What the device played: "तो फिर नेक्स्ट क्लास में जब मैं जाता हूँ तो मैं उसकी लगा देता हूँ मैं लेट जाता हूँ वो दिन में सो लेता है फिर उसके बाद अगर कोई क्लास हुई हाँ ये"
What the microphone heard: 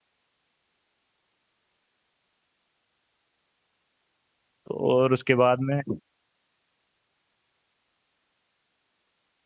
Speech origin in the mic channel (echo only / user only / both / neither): user only